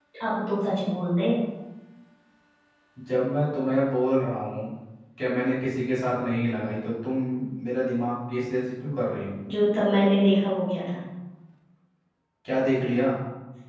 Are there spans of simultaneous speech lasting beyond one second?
No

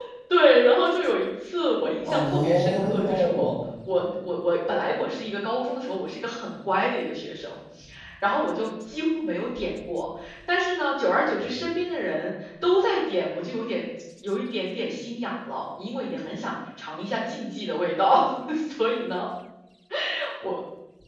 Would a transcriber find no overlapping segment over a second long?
No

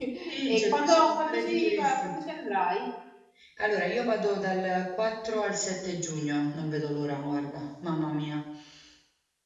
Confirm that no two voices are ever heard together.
No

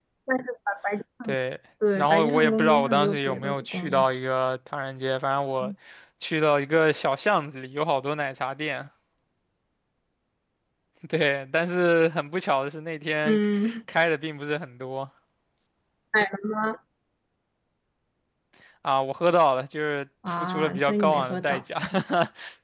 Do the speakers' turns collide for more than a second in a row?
Yes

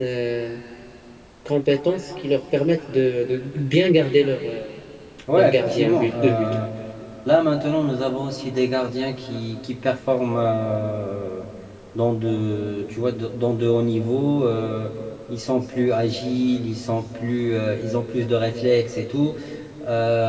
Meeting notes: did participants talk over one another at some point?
Yes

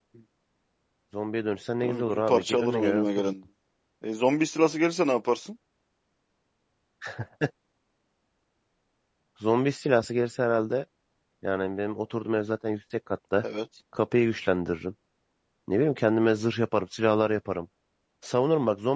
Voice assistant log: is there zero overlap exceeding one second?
No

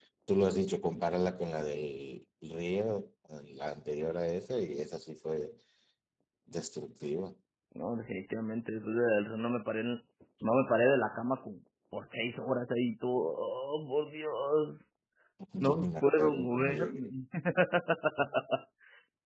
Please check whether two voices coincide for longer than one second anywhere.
Yes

